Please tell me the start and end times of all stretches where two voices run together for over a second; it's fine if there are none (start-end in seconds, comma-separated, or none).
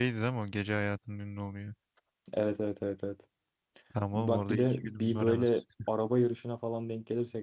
4.1-5.6